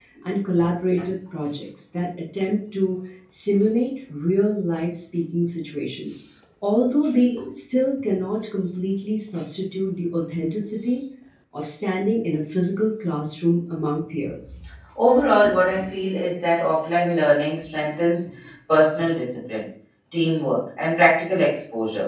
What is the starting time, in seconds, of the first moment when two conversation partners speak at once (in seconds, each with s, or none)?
none